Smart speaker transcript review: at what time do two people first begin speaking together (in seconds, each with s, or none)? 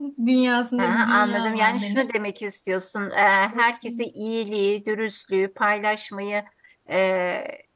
0.8 s